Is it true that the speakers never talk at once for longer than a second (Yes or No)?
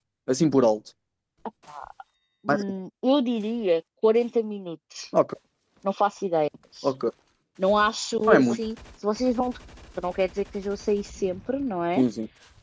Yes